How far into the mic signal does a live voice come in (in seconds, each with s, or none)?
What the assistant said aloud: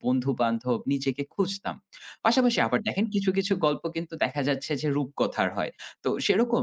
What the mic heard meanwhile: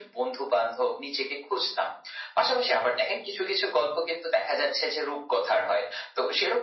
none